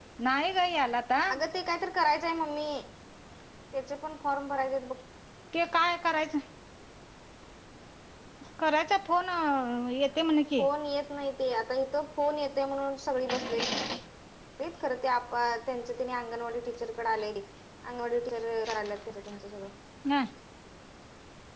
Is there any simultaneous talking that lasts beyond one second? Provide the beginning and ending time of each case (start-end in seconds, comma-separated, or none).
none